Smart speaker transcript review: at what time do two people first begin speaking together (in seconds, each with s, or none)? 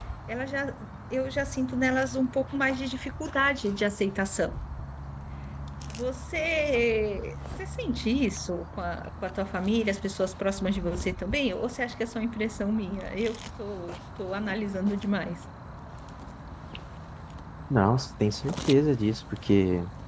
none